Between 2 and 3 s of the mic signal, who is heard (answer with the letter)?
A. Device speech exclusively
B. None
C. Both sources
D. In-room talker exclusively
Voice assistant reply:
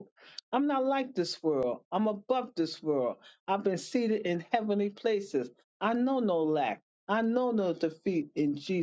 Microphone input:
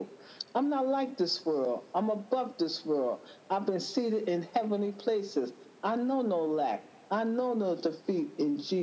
A